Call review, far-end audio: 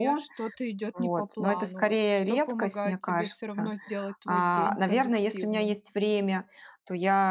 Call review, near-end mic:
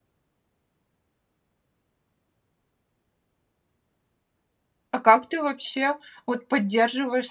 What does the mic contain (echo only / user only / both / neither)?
user only